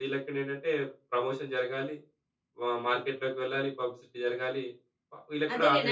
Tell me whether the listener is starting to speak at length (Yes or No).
Yes